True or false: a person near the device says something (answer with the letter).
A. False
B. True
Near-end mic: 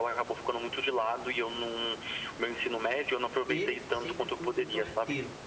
B